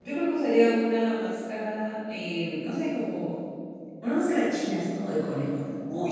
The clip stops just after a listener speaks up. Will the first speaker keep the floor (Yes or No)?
No